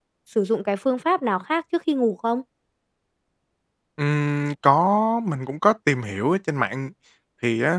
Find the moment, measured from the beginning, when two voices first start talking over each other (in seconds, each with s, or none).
none